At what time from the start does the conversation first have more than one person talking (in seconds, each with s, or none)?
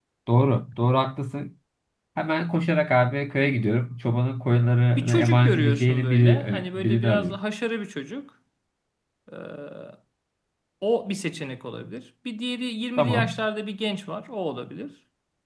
5.0 s